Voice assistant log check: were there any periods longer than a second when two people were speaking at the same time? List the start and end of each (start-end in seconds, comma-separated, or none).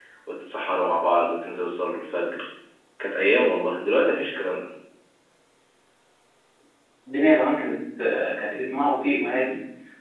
none